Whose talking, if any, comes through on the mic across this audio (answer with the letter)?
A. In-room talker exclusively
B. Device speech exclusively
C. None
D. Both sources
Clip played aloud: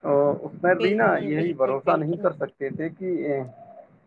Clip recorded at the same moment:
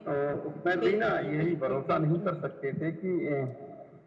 B